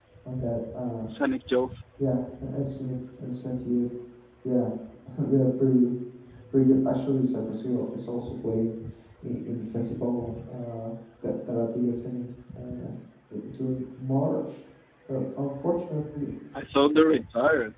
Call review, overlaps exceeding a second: none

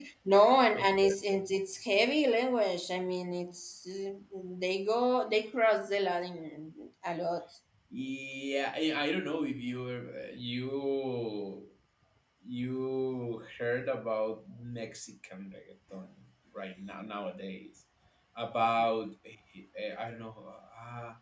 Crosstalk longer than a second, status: none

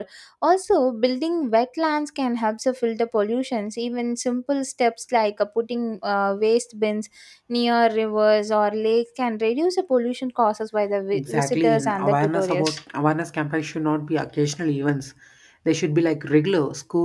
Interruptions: present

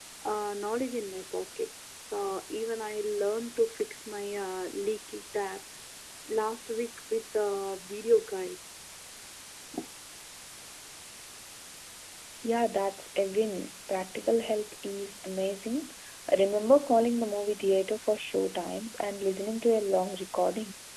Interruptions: none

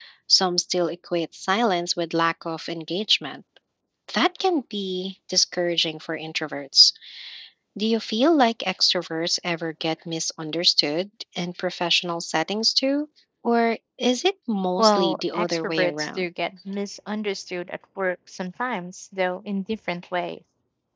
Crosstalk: present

